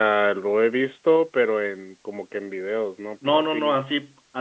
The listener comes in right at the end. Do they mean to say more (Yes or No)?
Yes